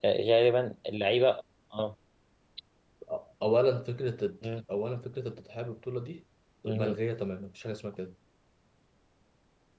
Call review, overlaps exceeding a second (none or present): none